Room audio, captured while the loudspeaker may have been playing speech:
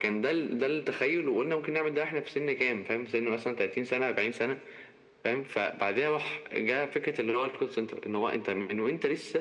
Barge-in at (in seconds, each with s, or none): none